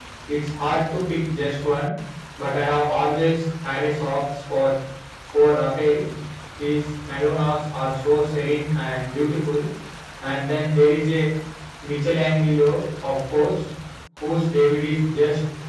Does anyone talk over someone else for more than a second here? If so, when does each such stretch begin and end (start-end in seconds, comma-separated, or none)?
none